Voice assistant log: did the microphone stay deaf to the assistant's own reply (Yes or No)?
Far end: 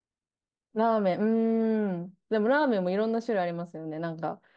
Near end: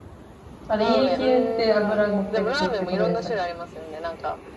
No